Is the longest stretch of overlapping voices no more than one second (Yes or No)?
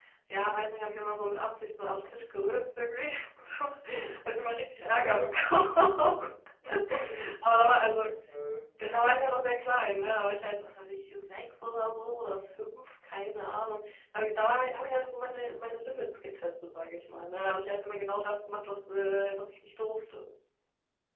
Yes